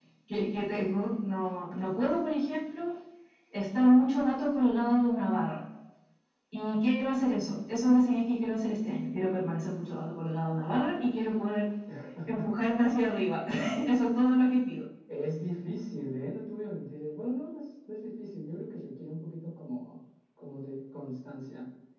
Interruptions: none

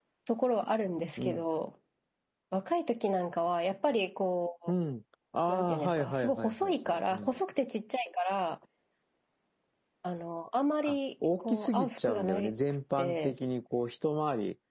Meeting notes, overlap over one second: present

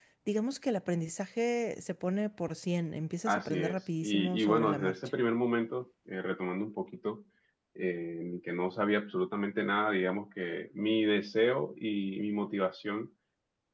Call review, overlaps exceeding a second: present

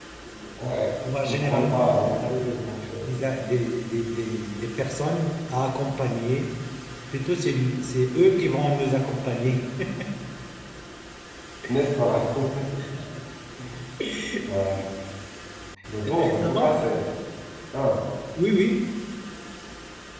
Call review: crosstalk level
present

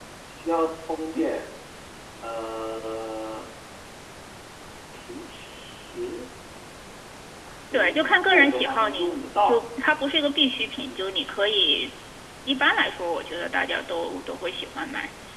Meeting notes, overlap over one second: present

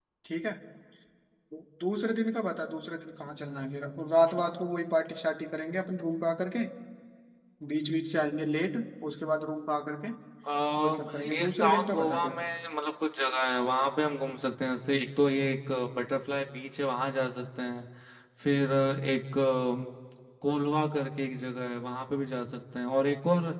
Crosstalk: present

